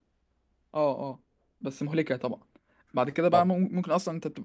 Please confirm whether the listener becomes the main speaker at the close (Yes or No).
No